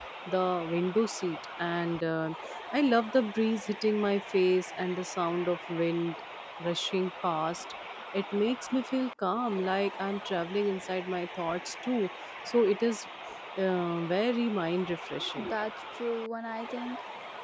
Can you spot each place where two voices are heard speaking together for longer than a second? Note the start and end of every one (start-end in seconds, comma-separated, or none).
none